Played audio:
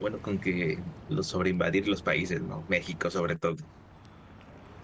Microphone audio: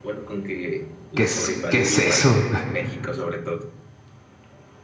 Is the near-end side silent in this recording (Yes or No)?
No